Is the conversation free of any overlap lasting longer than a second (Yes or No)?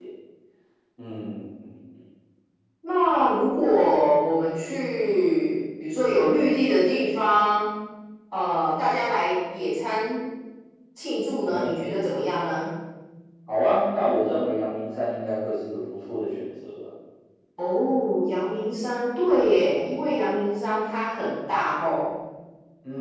Yes